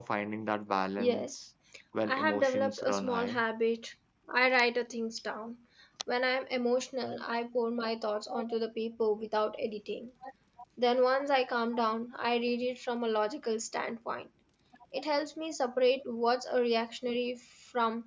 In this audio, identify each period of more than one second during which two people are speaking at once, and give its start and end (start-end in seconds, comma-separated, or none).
2.0-3.4